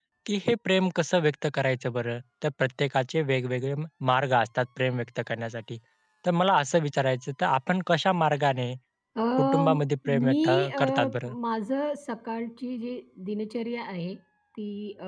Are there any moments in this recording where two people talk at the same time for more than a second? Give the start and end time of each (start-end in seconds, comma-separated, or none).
10.1-11.3